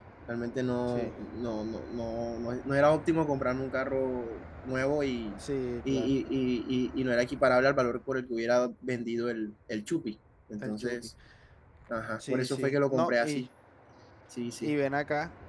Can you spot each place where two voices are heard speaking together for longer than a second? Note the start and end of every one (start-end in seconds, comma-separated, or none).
12.2-13.4